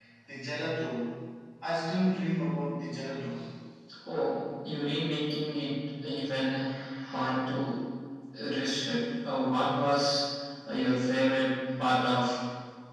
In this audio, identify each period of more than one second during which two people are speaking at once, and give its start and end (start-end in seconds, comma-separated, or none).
none